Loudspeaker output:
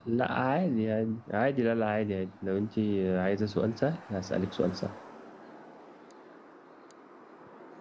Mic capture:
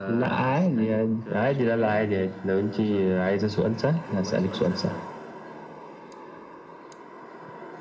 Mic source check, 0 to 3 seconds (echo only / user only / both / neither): both